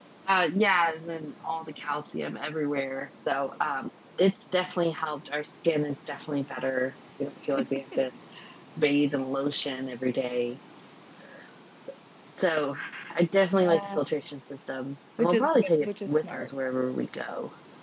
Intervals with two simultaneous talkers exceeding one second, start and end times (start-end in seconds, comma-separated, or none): 15.2-16.5